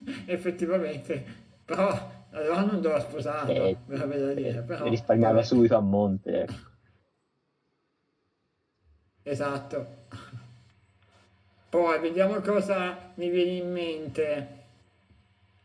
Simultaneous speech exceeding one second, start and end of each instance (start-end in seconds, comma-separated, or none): 3.2-5.5